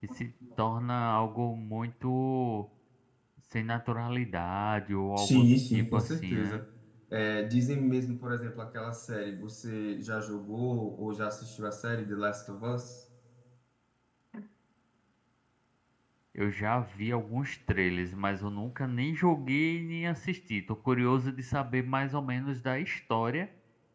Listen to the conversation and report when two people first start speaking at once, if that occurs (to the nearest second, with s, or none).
5 s